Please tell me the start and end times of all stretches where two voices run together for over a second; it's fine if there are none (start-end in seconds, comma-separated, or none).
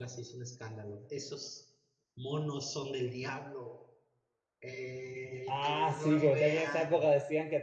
5.5-7.0